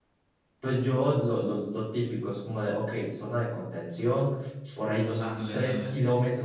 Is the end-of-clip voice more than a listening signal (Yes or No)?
No